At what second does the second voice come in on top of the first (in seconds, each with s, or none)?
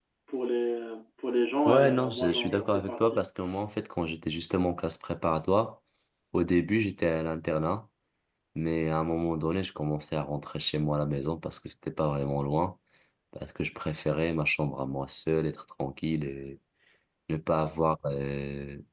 1.6 s